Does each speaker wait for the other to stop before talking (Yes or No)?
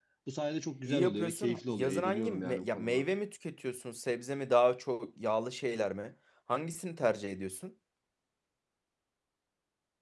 No